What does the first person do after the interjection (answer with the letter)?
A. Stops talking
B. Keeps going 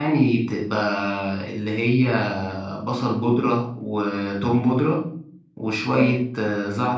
B